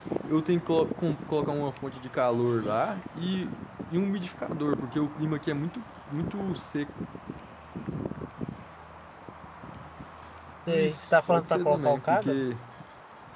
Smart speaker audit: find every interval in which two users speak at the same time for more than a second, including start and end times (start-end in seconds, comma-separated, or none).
10.7-12.4